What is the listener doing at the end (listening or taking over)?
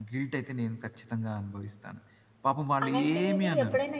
taking over